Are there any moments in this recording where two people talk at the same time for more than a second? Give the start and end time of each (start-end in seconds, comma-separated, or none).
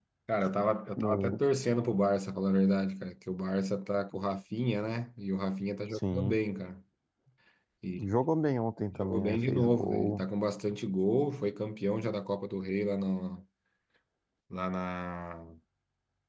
8.9-10.2